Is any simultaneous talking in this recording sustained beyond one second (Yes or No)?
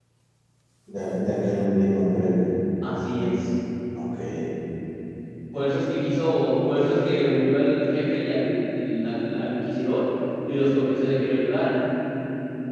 No